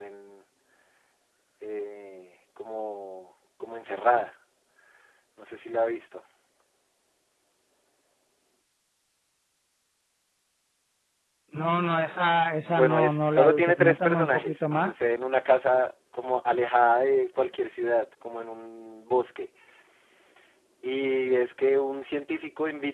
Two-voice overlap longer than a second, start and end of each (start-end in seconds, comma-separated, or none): 12.7-14.9